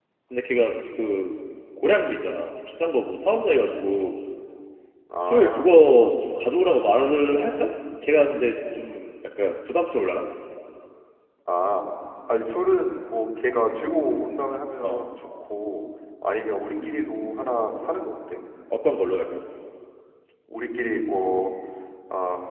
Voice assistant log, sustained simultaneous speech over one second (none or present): present